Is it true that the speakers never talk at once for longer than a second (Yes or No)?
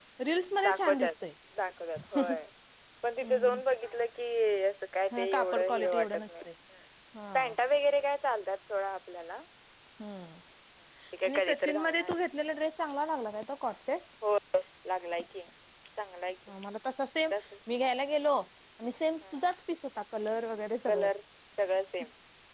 No